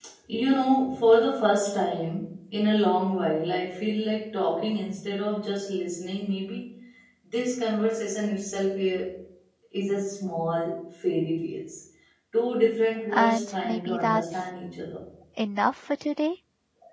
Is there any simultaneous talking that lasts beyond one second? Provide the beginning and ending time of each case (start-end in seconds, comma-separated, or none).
13.1-14.4